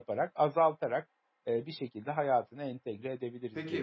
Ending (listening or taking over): taking over